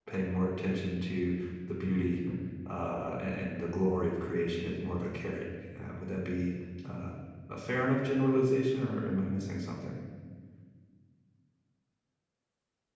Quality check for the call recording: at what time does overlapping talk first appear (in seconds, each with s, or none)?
none